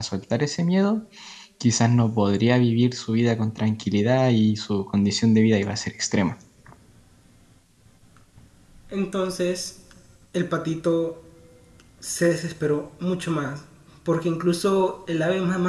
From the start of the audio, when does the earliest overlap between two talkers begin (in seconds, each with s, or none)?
none